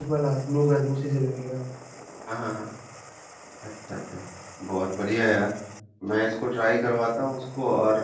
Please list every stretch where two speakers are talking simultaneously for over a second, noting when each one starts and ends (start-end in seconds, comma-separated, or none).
none